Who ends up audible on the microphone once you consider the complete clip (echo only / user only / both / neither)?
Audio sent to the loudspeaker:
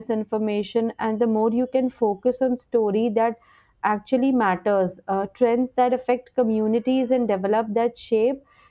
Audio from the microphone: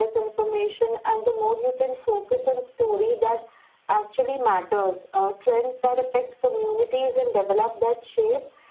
echo only